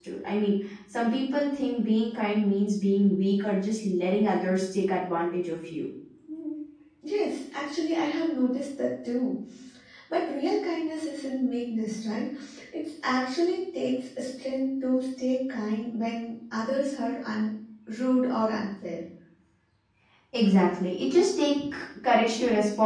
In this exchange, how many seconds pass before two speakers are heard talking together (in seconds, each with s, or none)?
none